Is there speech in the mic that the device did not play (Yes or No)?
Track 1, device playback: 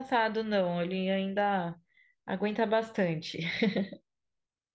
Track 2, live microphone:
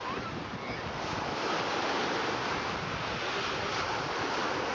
No